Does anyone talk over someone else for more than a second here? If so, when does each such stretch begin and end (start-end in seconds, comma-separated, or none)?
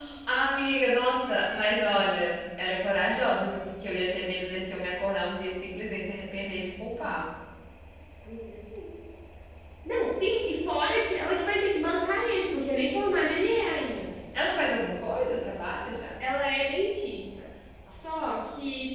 none